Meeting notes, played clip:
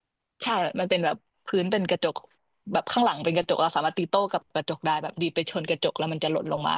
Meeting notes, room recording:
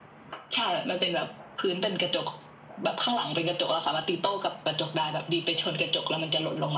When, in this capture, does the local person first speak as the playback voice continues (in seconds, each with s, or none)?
none